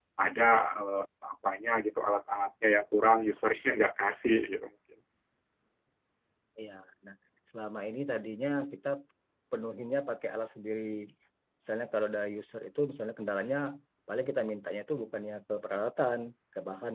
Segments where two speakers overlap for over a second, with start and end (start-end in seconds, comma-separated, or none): none